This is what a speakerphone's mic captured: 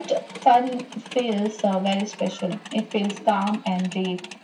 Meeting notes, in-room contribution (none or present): none